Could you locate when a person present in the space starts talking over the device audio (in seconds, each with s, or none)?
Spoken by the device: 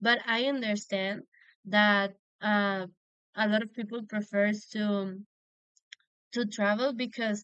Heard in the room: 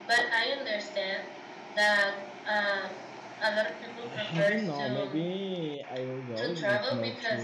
4.0 s